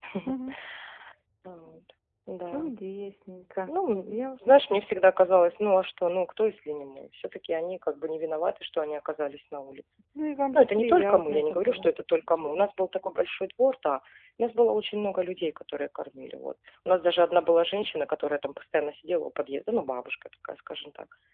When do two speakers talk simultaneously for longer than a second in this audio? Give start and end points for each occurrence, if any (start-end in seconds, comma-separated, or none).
10.5-11.9